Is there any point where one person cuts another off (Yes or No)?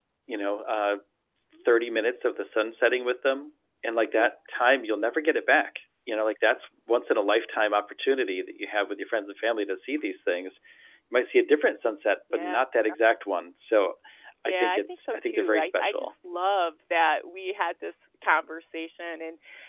Yes